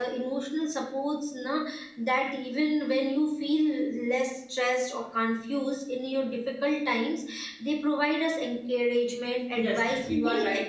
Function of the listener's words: taking over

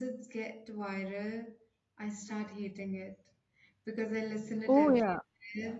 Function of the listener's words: listening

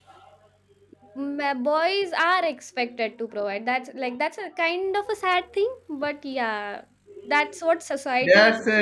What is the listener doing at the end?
taking over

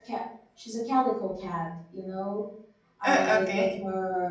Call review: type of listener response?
listening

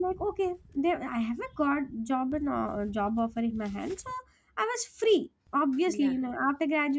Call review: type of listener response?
listening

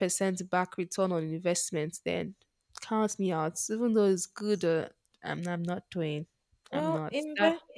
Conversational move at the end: taking over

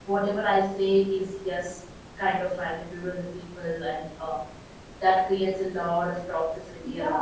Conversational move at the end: taking over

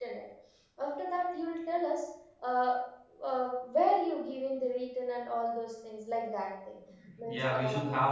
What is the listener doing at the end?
taking over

